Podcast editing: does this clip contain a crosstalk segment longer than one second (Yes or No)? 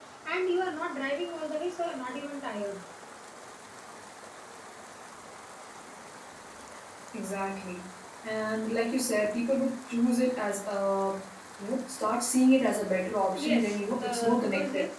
Yes